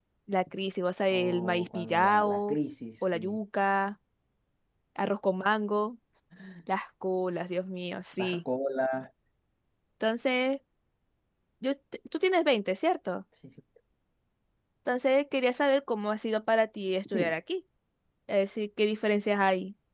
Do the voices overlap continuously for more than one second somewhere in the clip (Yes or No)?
Yes